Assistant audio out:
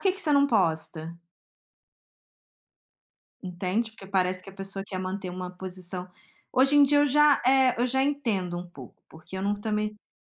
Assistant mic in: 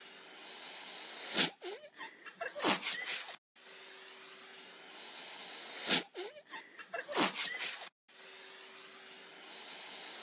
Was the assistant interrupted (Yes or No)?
No